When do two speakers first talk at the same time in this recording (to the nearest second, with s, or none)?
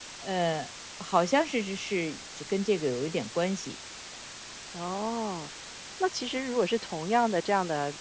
none